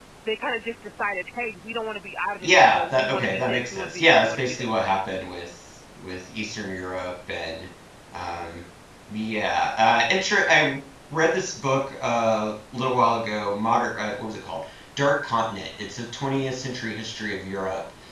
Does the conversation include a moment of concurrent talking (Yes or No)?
Yes